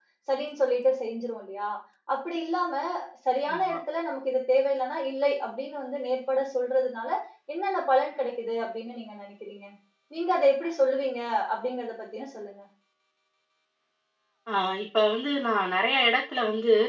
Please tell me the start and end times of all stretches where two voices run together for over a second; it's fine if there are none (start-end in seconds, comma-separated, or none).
none